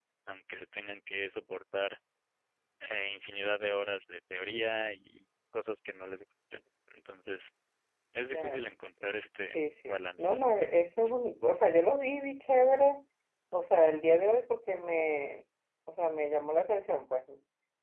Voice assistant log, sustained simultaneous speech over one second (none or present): present